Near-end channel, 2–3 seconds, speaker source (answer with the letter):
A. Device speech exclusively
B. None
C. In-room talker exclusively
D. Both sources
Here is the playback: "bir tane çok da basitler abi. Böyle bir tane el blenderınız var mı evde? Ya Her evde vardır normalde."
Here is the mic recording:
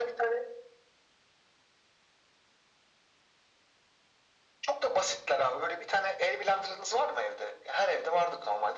B